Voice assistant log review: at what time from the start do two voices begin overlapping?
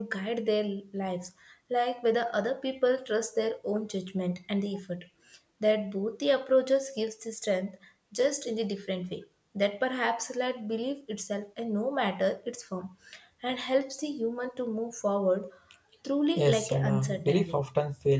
16 s

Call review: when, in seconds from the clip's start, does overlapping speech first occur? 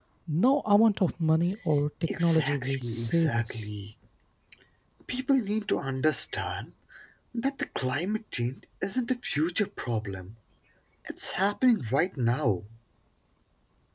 2 s

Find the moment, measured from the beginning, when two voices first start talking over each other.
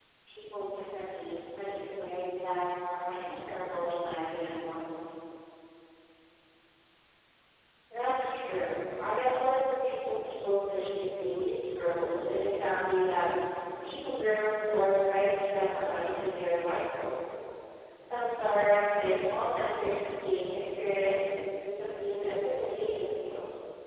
none

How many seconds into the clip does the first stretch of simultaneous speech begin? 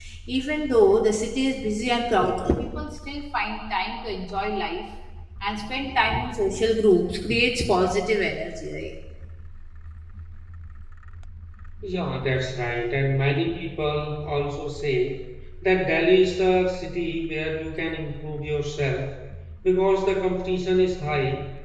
none

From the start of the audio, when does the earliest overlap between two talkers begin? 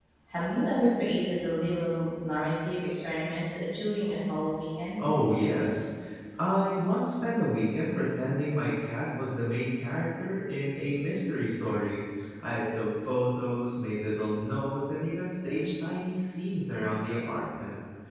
none

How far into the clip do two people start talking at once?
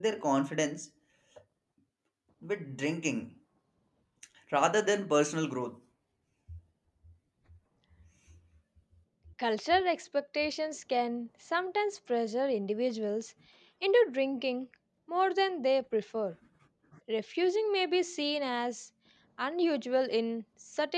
none

